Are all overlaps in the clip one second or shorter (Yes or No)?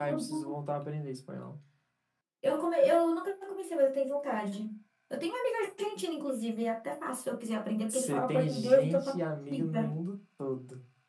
No